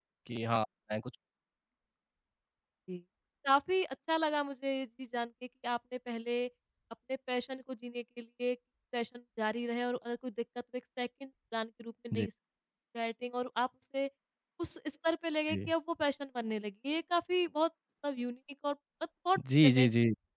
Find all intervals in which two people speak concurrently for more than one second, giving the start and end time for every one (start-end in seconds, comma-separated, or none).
none